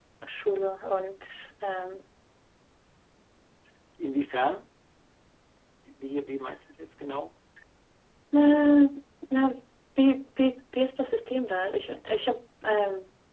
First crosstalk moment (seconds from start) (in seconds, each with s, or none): none